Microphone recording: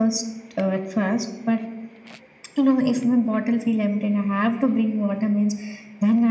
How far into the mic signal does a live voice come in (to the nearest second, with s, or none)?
none